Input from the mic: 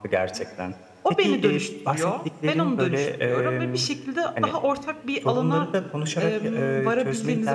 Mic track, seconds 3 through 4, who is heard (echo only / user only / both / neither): both